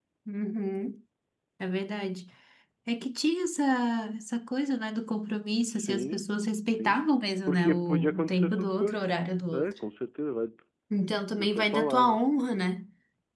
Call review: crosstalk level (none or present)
present